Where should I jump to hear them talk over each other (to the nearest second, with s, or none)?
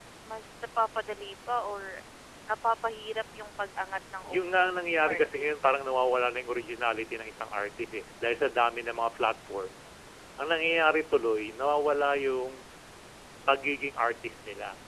4 s